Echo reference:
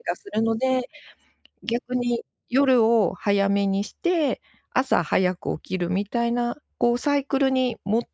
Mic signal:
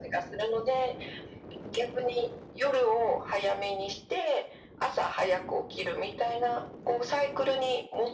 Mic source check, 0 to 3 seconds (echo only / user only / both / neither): echo only